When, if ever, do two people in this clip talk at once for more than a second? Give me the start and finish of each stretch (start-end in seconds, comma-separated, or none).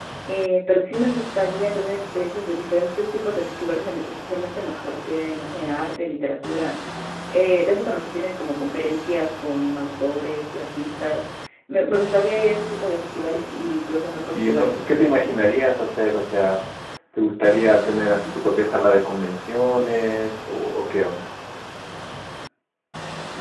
14.3-15.6